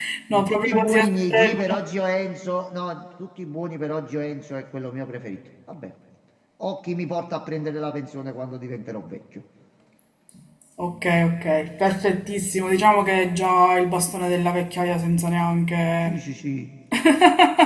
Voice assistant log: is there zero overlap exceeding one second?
No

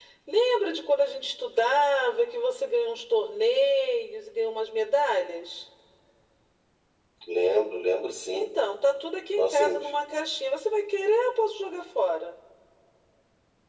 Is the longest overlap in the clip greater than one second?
No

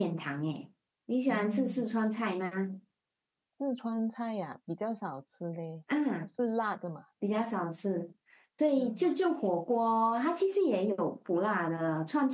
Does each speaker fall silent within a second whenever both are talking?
Yes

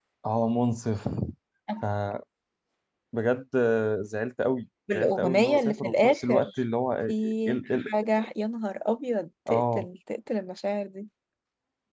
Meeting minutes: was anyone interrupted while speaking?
Yes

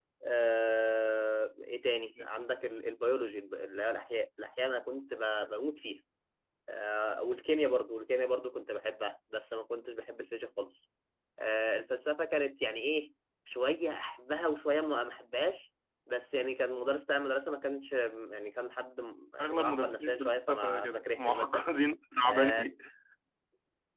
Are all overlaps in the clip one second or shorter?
No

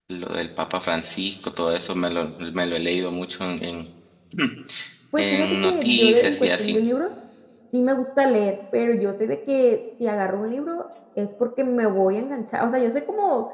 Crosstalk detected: Yes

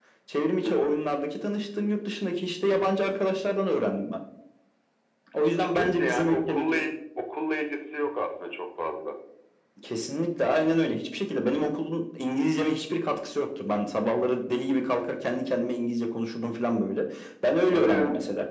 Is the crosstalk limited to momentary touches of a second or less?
No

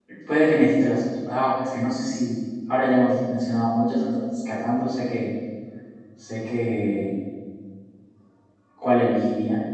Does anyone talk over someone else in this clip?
No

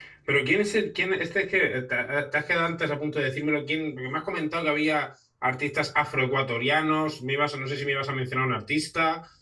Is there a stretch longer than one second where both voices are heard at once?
No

